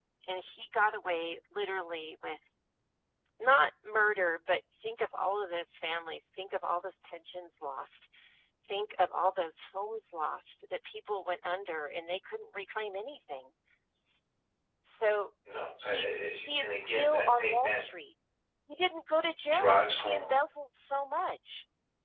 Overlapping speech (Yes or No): Yes